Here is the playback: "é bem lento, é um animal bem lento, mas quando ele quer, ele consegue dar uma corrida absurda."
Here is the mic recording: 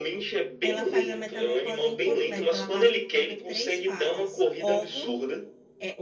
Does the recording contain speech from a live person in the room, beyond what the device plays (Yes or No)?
Yes